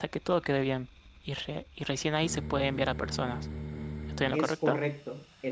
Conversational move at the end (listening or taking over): taking over